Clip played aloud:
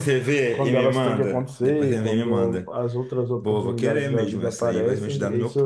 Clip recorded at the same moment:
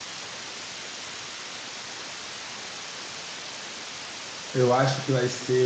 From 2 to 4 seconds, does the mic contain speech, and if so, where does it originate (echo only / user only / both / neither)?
neither